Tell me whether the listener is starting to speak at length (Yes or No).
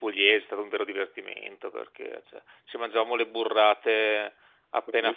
No